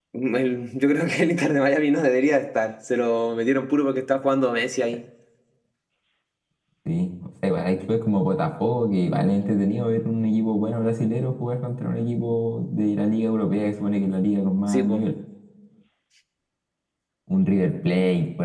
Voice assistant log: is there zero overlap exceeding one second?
Yes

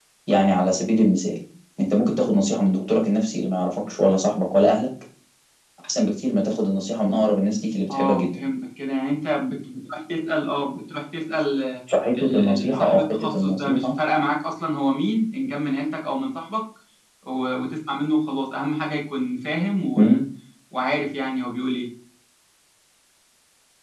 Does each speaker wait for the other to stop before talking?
No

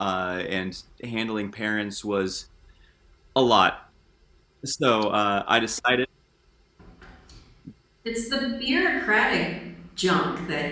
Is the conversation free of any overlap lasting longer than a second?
Yes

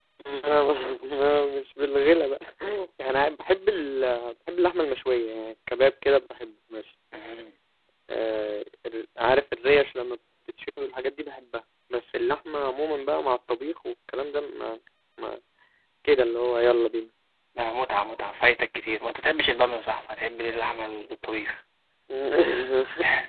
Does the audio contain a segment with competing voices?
No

